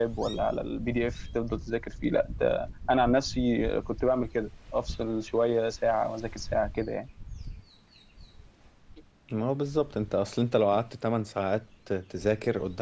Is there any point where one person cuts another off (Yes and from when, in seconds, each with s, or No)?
No